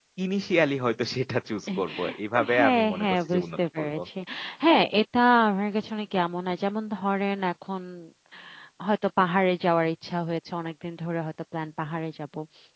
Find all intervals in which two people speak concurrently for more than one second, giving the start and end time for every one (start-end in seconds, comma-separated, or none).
2.5-3.9